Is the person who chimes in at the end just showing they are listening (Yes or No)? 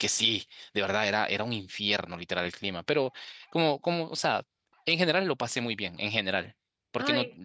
Yes